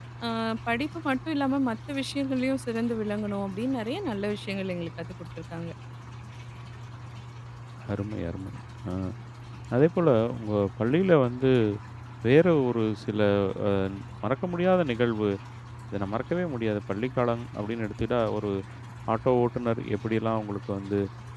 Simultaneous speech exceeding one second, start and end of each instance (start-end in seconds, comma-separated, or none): none